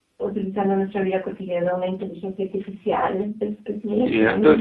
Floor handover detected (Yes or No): Yes